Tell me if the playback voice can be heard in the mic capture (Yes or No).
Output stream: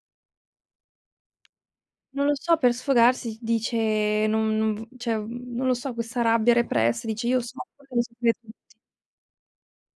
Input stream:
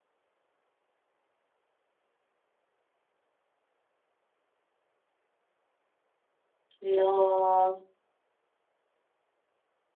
No